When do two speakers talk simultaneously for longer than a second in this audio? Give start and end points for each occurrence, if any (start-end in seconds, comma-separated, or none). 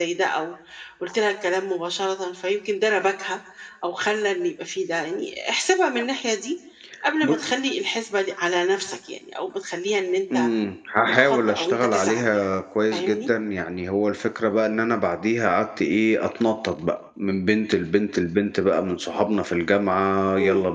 11.1-12.5